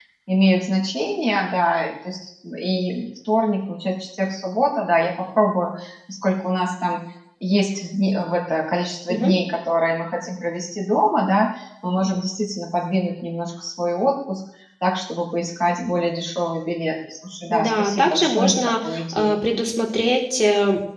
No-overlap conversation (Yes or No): No